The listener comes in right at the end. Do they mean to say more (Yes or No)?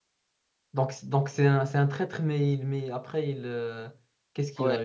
Yes